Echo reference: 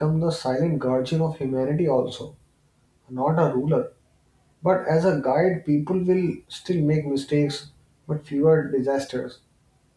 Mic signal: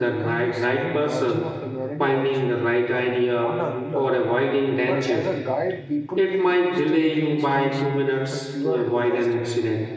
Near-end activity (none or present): present